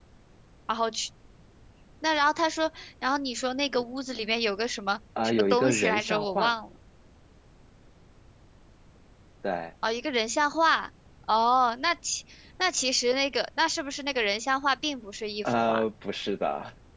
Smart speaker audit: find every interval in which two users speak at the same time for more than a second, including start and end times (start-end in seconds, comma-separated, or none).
5.2-6.5